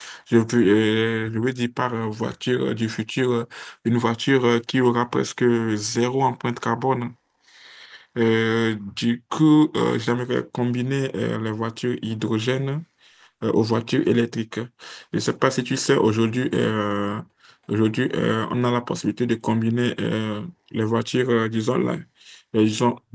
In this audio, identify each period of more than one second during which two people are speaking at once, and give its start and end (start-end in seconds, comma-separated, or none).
none